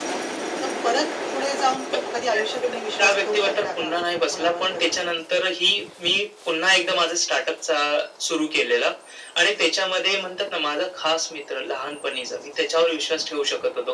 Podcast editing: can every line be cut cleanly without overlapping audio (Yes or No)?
No